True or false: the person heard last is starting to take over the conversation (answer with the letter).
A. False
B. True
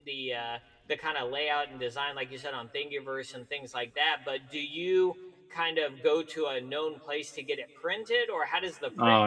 B